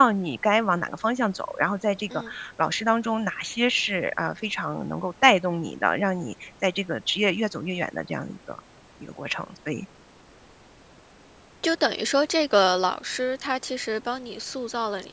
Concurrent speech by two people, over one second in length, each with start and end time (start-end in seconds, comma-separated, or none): none